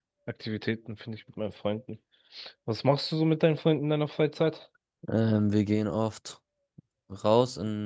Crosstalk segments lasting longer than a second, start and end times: none

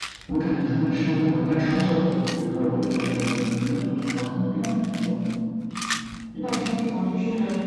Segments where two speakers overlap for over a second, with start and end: none

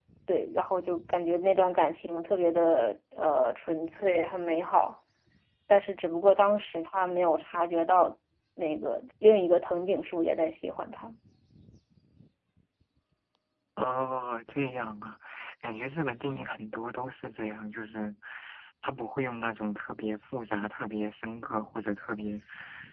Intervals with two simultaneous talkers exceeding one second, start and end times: none

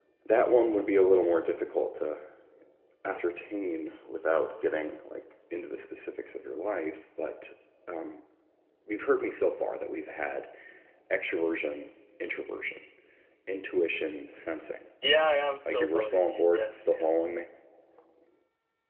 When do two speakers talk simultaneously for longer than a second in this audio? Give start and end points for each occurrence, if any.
15.7-17.2

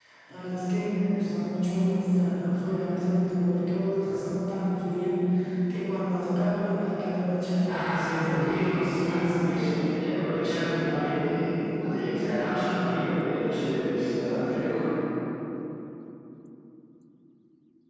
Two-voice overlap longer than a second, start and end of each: 7.7-9.6

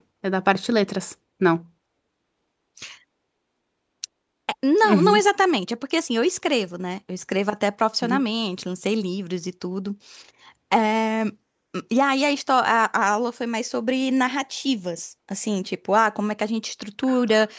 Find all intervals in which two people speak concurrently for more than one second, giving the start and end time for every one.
none

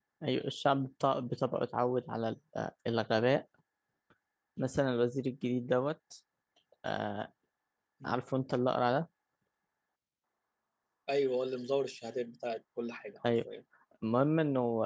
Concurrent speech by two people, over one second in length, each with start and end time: none

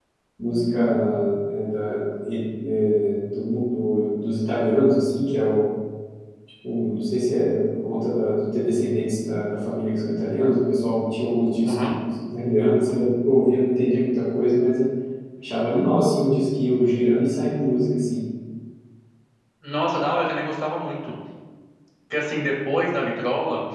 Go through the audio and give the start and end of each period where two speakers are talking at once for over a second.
none

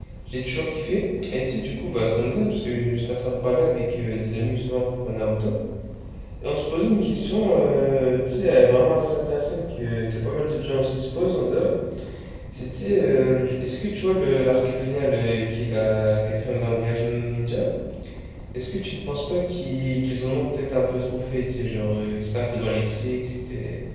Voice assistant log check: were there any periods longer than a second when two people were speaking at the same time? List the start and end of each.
none

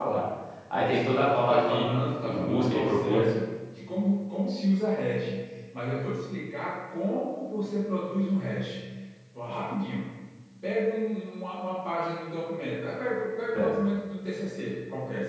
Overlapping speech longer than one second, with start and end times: 0.7-3.3

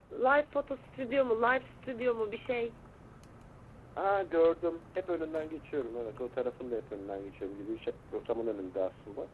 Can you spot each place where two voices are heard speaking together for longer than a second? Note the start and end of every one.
none

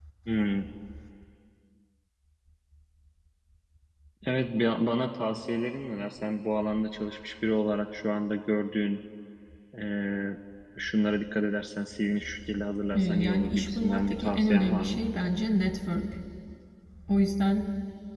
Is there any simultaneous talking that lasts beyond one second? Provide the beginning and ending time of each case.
12.9-15.0

